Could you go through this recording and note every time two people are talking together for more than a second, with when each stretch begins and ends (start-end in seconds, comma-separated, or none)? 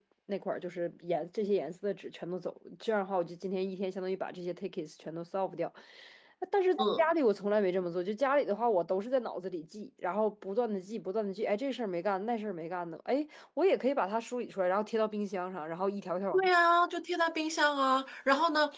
none